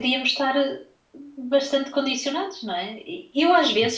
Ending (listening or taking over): listening